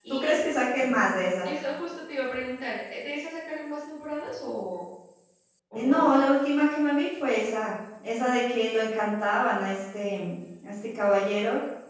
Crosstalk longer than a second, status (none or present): none